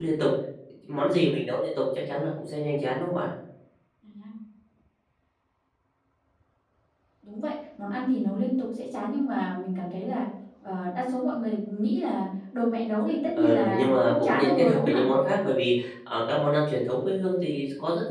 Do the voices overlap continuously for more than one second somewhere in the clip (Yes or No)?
Yes